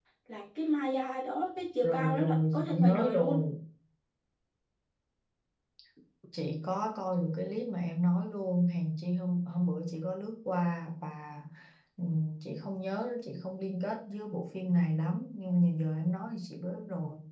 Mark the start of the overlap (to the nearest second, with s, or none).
2 s